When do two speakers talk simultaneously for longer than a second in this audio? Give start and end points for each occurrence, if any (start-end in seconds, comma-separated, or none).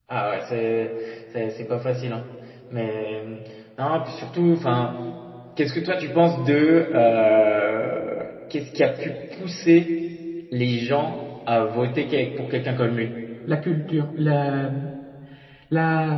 none